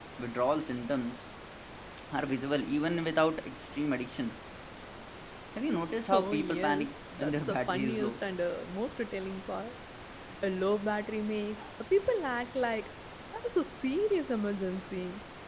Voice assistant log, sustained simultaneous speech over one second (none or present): present